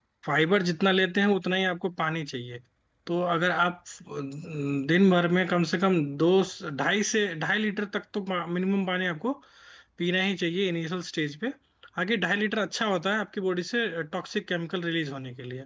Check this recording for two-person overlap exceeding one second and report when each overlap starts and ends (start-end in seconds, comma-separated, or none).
none